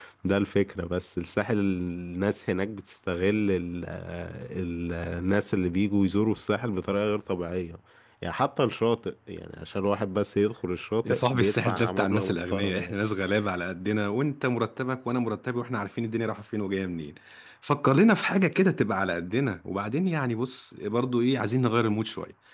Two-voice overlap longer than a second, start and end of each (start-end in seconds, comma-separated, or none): 11.0-13.0